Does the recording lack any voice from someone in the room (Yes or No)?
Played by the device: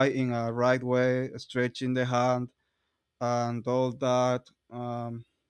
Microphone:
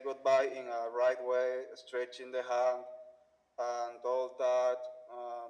Yes